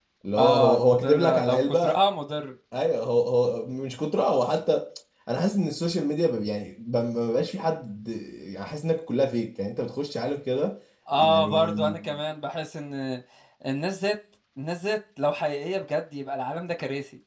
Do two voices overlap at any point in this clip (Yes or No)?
Yes